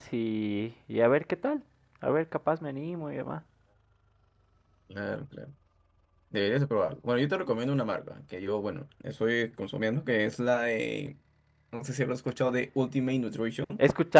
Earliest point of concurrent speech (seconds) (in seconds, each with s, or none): none